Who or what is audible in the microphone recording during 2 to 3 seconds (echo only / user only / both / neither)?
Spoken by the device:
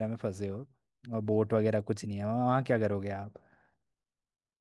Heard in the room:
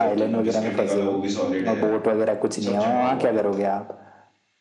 both